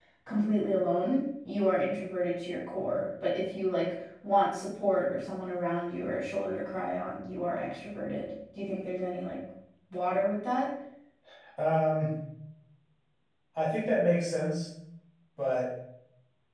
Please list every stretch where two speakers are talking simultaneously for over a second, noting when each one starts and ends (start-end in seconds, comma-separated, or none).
none